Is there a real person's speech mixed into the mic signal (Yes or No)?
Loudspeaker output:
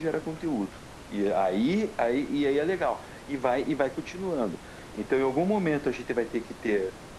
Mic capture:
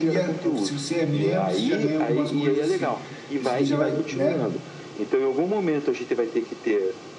Yes